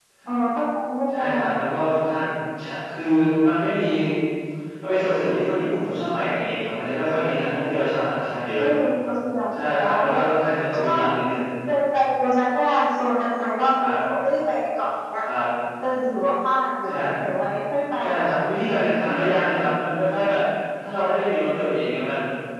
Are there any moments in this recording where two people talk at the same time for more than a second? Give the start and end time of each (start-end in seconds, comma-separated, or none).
none